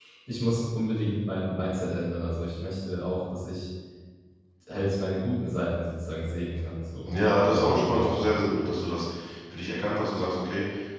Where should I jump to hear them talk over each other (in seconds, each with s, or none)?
7.0 s